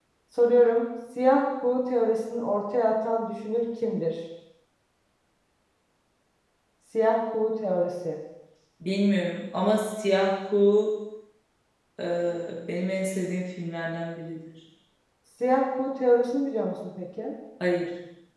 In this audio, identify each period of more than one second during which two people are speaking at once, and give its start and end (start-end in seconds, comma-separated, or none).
none